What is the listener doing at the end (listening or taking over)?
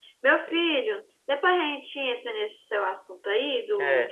taking over